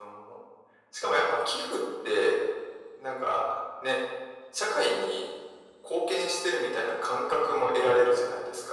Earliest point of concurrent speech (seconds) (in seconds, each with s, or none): none